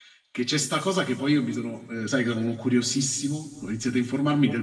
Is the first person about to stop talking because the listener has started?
No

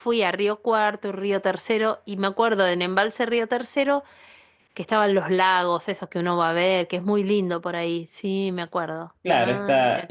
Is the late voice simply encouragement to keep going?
No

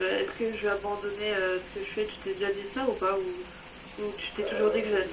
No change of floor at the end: No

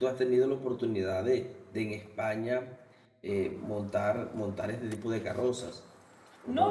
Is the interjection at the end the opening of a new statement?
Yes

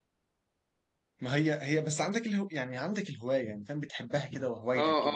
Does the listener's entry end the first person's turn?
Yes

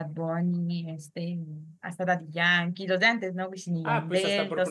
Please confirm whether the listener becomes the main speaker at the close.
Yes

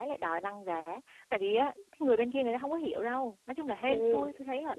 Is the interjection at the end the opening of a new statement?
Yes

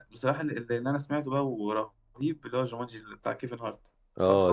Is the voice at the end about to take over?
Yes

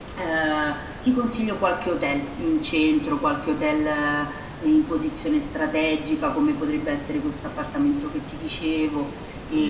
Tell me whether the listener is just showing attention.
No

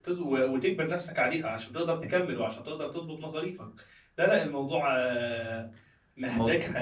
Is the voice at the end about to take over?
No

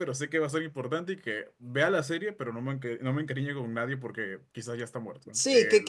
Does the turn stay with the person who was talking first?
No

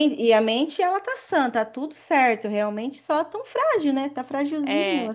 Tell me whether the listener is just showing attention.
No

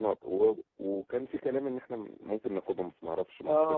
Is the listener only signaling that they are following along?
No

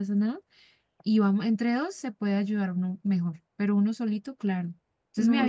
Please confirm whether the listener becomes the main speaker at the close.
Yes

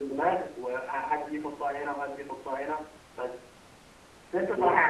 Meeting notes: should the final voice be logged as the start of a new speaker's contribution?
No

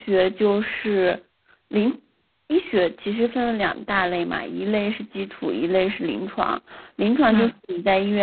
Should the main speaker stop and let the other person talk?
No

